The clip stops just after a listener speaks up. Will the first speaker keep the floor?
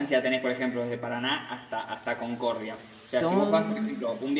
Yes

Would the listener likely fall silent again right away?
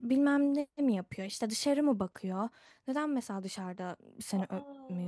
Yes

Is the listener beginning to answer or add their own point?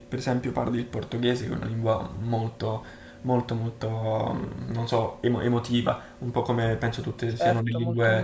Yes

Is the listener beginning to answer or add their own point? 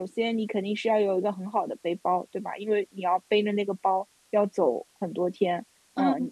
Yes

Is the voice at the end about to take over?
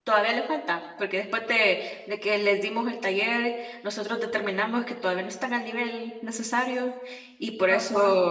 No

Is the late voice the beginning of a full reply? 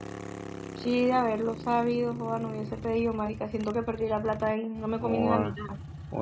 Yes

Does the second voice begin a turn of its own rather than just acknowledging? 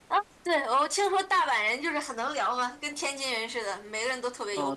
Yes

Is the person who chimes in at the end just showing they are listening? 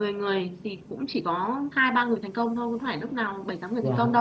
Yes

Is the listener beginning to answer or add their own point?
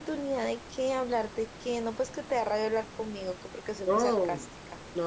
Yes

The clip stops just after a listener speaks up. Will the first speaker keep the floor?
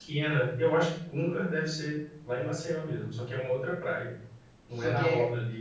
No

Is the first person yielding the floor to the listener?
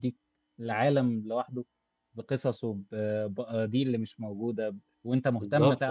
No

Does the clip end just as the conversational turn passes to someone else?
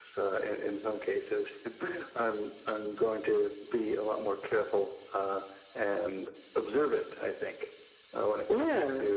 No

